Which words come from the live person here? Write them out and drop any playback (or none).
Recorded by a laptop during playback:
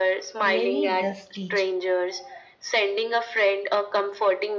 really does teach.